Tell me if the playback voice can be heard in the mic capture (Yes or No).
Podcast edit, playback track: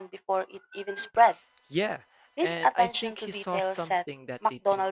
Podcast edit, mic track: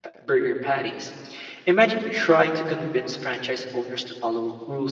No